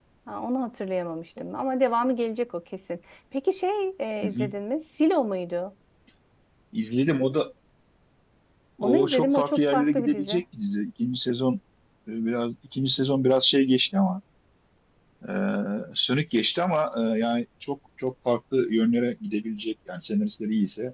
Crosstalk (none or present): present